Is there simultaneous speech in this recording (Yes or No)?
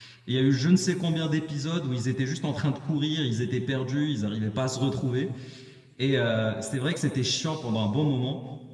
No